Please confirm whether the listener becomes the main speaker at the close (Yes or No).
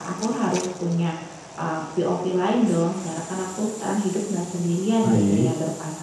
No